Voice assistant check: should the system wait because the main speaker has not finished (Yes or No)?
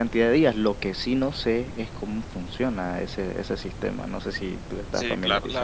No